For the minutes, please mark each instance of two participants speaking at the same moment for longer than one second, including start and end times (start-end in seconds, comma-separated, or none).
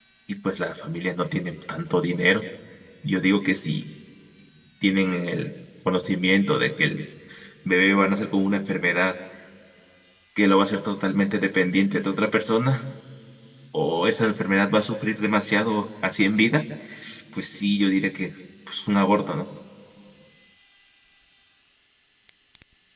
none